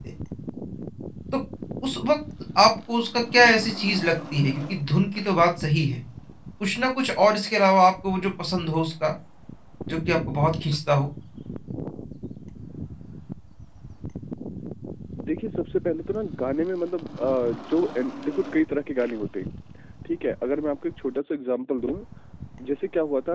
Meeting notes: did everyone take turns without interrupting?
Yes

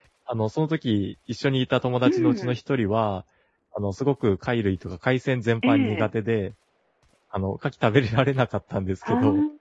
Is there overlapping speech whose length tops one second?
No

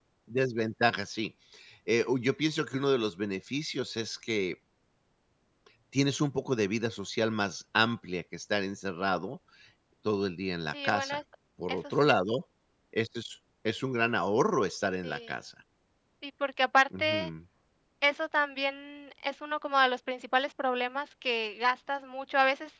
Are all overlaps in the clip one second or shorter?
Yes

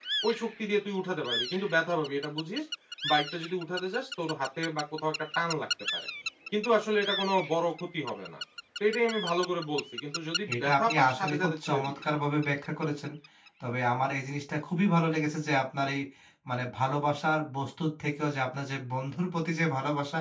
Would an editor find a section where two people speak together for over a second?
Yes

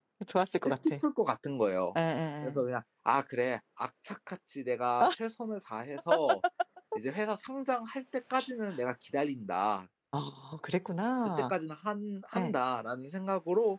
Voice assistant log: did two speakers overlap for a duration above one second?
No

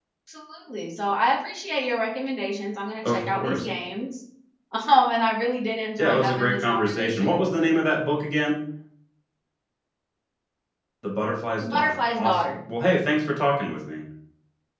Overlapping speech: Yes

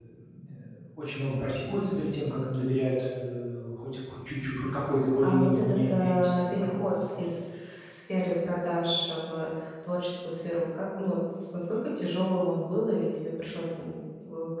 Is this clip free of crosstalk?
No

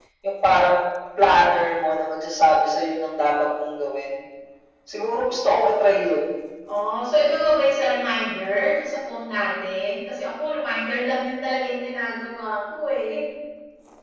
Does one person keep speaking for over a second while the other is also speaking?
No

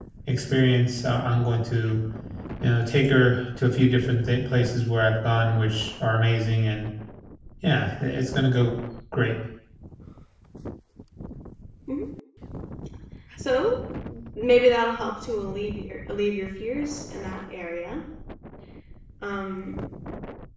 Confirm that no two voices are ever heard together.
Yes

